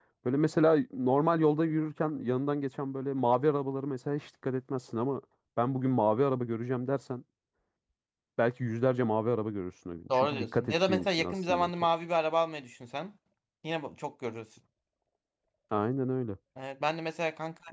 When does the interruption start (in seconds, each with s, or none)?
10.1 s